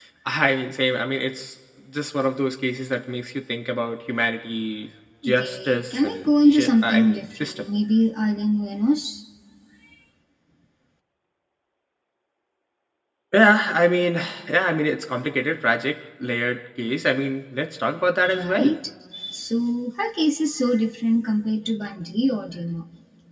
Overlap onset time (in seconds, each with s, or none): 5.3 s